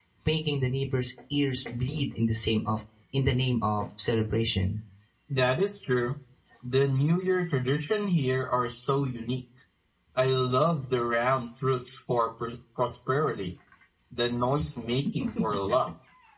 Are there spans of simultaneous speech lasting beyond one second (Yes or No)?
No